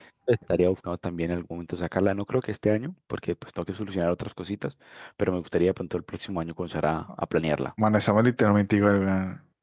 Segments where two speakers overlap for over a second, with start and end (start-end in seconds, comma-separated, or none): none